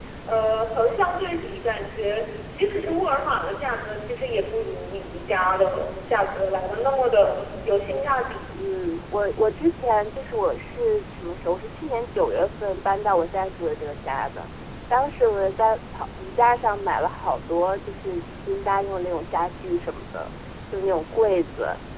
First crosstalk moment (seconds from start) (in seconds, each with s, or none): none